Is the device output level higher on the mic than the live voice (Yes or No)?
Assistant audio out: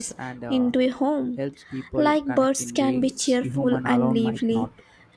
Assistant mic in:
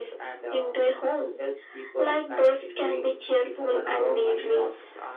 Yes